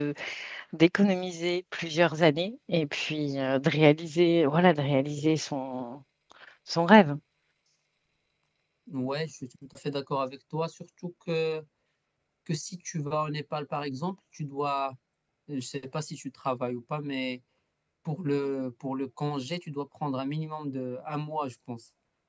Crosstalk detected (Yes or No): No